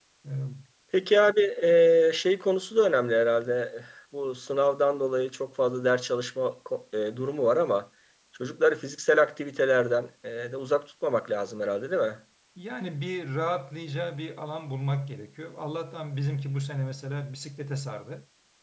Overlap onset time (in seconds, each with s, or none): none